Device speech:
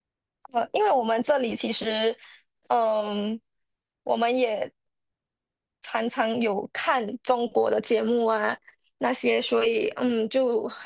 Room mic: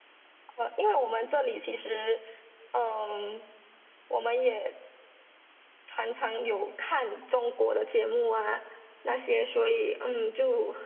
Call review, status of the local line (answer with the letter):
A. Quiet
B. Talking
A